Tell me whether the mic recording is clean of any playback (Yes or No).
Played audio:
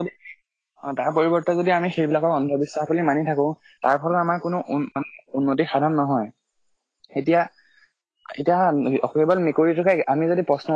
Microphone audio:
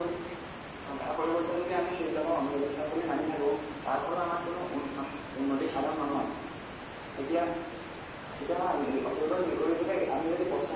No